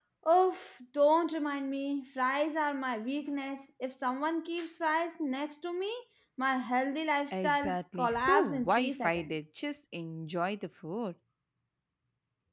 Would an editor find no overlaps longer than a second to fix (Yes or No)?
No